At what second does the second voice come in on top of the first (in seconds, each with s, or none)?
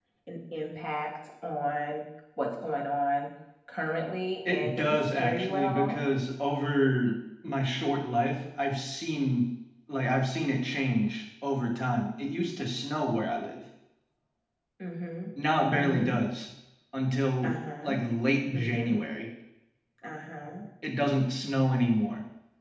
4.5 s